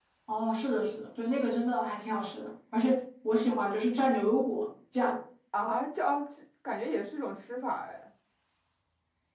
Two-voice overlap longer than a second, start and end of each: none

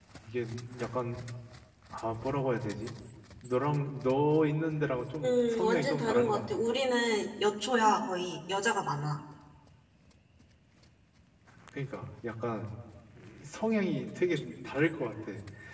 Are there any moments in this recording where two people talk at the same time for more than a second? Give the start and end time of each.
5.2-6.4

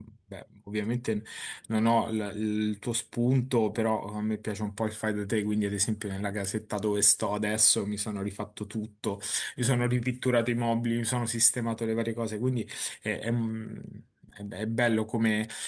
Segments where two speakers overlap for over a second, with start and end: none

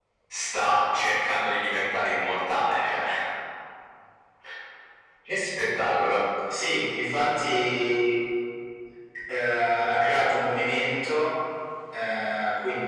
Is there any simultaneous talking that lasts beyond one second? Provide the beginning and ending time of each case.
none

